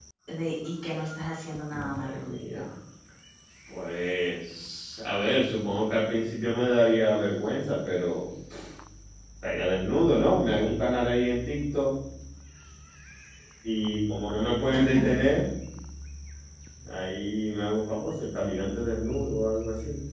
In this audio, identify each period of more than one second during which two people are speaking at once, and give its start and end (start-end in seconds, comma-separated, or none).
none